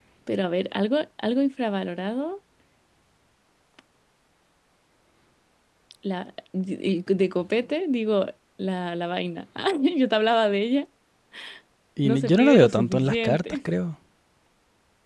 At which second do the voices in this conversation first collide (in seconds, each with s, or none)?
12.0 s